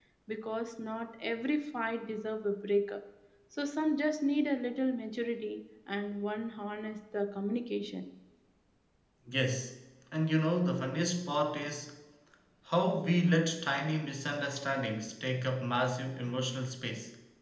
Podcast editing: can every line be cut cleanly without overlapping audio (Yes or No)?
Yes